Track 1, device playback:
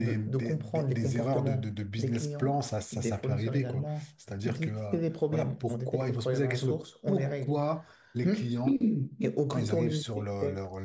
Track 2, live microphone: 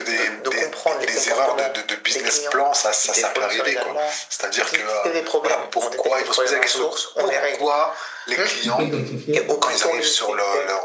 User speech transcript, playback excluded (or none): on peut identifier.